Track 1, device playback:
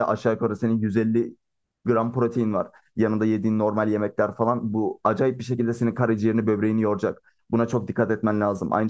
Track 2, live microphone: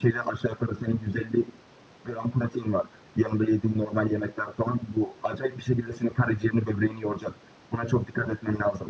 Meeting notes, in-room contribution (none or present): none